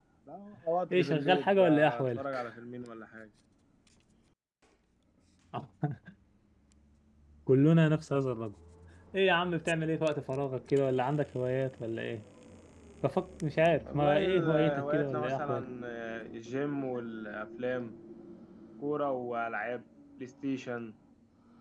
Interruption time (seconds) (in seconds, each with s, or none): 0.9 s